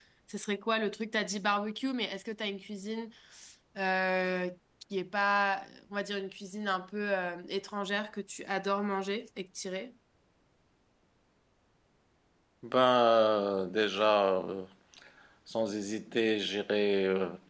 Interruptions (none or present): none